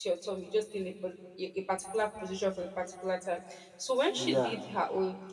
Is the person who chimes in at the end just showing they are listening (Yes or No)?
Yes